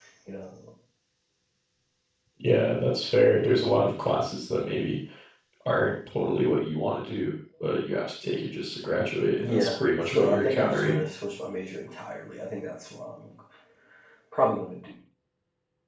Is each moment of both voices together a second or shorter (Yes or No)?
No